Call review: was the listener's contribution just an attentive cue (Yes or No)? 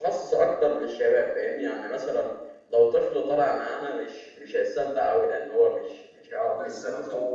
No